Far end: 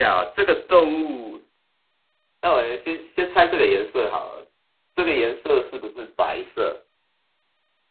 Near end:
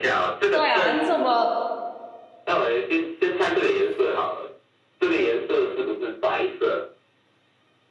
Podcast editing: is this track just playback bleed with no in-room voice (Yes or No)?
No